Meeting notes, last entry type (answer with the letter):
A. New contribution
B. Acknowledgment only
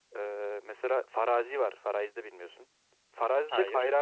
B